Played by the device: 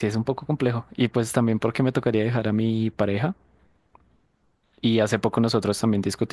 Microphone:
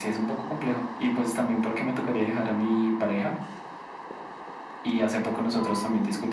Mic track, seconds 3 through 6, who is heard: echo only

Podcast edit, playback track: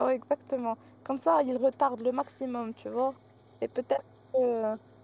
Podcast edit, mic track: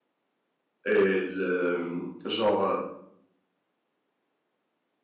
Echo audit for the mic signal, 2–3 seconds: user only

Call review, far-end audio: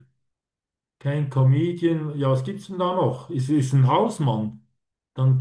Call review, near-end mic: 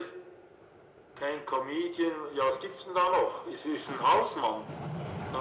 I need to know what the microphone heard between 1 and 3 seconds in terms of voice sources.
echo only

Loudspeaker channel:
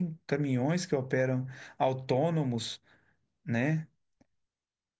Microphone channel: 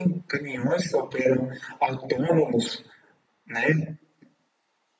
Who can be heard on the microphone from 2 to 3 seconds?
echo only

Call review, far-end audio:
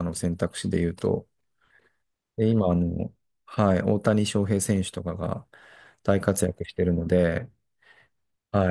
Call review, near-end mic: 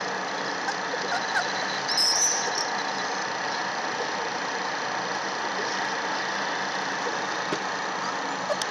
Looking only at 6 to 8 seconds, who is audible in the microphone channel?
neither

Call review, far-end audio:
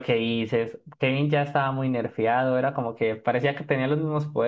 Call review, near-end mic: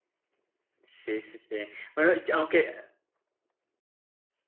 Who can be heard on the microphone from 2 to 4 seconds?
user only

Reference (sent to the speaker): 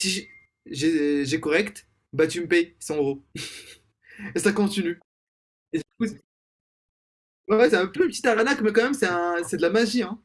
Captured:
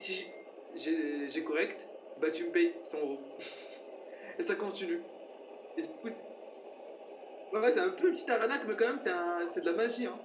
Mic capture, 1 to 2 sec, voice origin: echo only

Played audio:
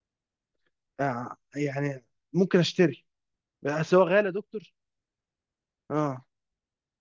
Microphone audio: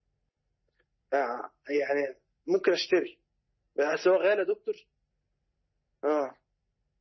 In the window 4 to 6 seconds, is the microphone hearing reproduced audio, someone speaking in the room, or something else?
echo only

